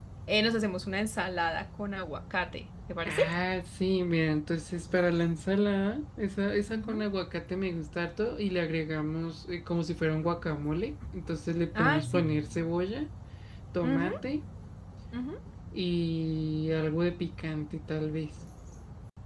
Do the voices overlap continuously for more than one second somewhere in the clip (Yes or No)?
No